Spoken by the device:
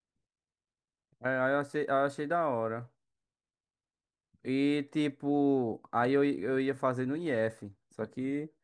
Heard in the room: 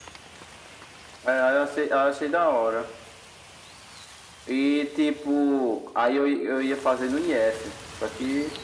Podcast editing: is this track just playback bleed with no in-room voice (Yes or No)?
Yes